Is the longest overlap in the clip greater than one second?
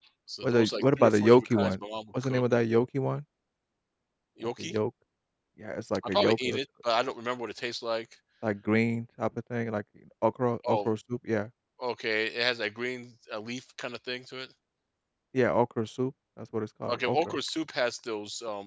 Yes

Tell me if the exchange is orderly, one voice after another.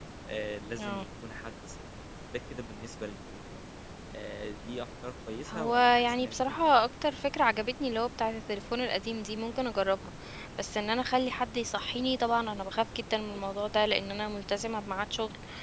No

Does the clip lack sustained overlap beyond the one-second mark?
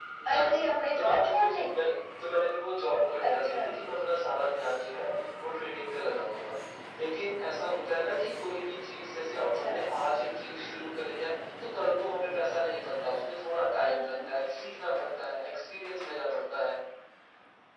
No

